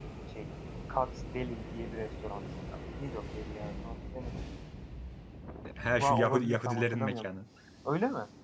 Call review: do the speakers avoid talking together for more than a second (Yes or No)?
No